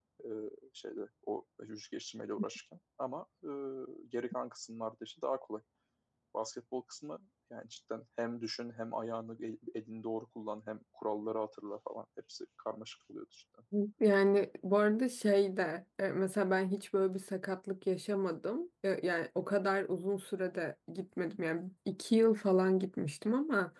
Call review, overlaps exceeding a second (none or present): none